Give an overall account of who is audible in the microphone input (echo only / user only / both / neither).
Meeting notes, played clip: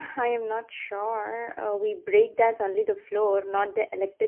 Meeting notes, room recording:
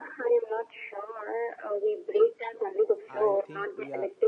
both